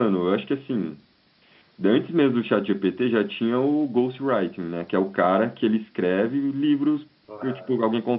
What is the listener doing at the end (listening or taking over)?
listening